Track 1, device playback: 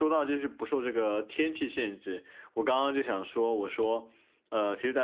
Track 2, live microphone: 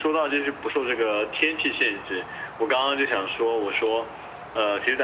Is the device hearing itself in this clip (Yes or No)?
Yes